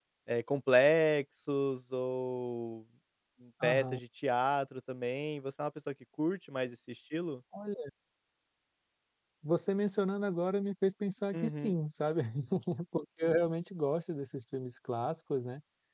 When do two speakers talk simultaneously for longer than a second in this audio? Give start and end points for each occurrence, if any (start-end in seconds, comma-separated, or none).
none